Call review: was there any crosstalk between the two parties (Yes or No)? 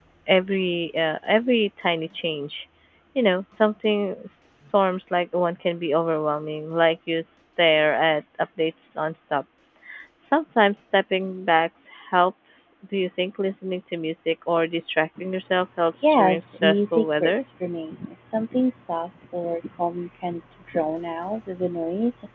Yes